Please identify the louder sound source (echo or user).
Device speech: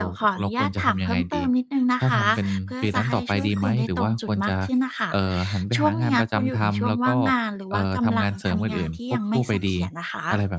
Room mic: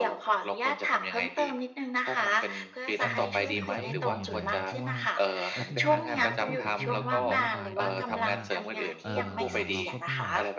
echo